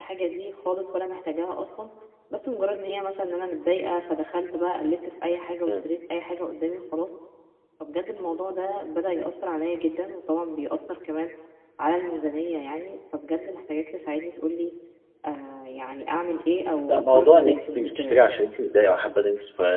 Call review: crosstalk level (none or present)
present